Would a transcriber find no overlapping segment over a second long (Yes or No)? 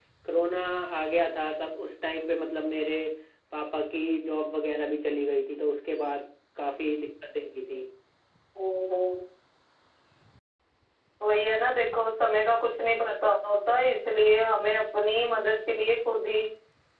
Yes